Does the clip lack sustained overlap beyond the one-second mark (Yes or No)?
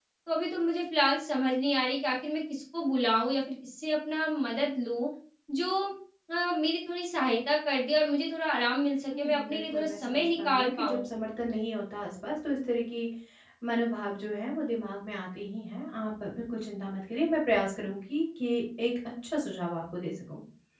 No